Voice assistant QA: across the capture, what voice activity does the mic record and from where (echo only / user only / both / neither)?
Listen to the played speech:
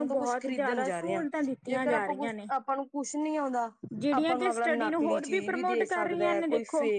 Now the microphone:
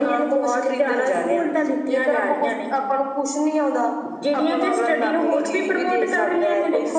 echo only